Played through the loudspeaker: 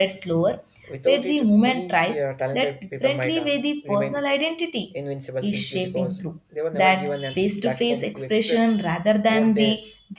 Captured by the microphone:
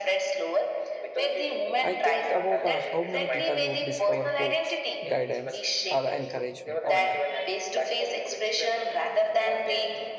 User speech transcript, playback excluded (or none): I think about uh, how many people would discover hopes, guidance, or encouragement online